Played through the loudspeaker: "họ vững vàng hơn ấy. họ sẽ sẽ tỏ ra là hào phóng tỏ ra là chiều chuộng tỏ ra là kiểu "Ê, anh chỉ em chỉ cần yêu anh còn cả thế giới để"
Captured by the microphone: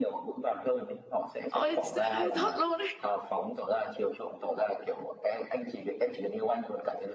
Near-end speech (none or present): present